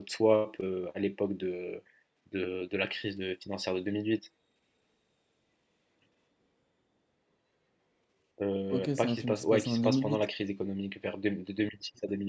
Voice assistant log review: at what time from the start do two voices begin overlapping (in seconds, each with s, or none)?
8.7 s